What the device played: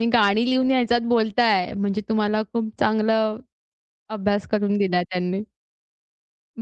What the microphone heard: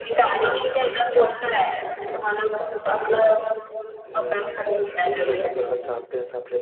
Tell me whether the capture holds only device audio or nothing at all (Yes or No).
No